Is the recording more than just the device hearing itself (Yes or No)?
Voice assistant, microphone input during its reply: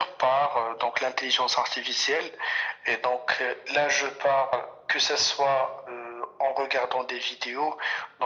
No